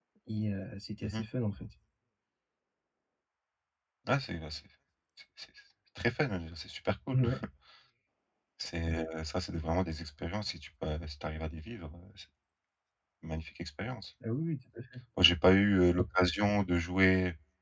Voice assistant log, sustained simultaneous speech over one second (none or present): none